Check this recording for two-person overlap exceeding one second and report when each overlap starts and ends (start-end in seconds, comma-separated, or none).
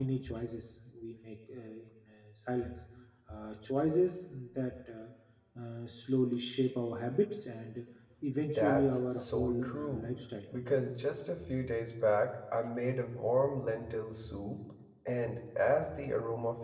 8.6-10.1